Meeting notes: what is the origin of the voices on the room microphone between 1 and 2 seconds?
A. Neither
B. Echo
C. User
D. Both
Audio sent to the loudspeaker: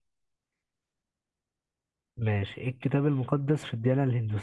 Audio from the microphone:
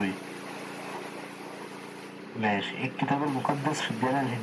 A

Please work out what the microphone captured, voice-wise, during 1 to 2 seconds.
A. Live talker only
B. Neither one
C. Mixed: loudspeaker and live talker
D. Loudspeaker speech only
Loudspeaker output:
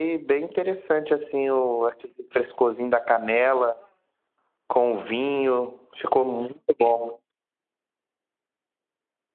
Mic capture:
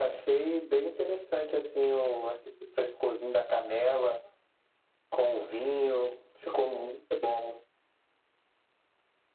D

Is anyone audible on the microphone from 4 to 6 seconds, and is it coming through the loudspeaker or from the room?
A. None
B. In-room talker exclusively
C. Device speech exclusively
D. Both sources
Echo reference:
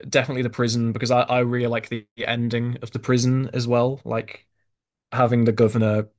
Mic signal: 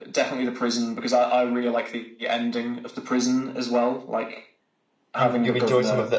D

